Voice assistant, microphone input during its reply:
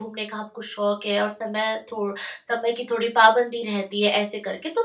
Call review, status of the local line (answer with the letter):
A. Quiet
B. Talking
B